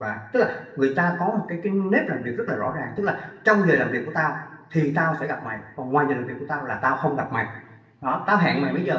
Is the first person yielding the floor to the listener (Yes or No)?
No